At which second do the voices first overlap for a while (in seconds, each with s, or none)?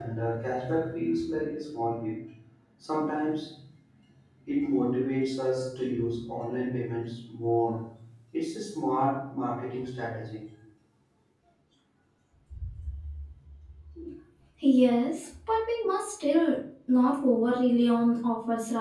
none